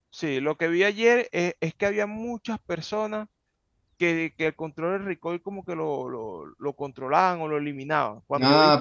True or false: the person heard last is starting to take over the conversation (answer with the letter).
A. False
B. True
B